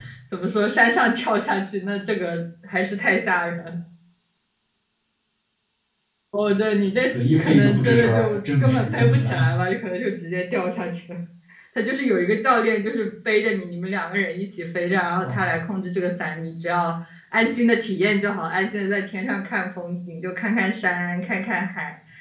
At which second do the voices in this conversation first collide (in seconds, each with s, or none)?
7.1 s